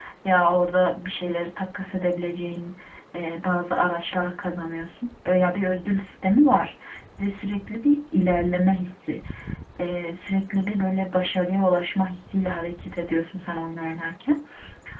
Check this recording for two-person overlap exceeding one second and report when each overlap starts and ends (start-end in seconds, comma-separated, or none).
none